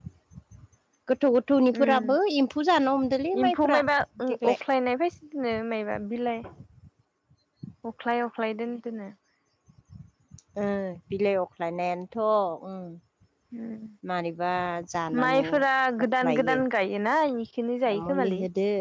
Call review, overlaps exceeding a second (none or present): none